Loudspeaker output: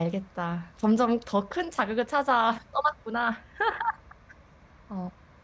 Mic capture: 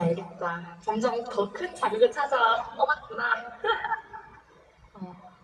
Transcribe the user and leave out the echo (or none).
none